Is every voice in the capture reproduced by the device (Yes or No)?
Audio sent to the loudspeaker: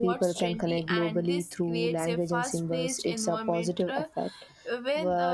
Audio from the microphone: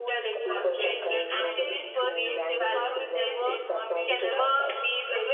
No